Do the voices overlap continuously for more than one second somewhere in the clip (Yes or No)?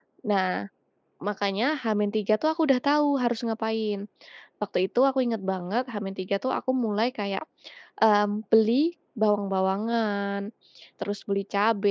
No